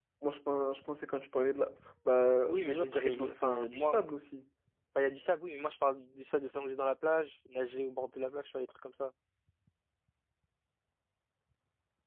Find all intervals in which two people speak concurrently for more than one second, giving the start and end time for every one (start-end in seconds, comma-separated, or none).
2.5-4.0